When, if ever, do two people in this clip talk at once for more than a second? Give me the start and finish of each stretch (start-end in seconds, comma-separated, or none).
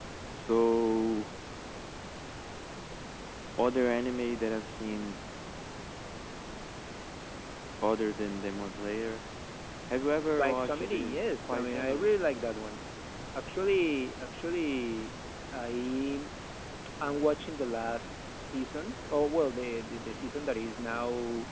10.3-12.1